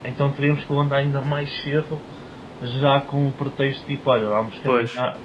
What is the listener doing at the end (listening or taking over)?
listening